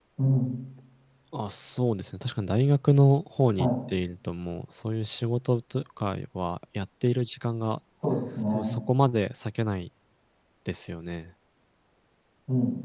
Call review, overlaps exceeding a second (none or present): none